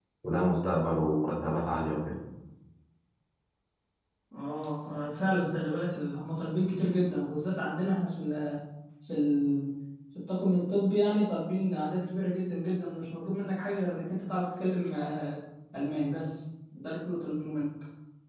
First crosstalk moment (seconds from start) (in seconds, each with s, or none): none